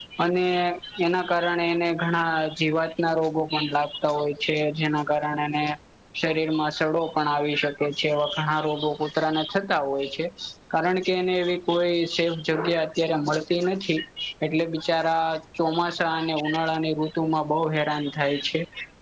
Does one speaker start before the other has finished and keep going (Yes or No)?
No